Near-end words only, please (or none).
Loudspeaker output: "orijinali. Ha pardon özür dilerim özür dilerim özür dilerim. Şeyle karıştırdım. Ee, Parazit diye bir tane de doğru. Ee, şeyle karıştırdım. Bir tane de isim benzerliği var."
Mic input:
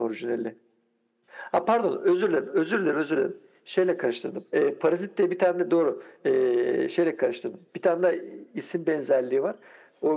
none